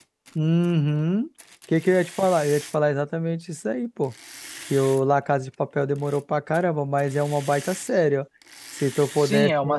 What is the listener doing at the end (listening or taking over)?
taking over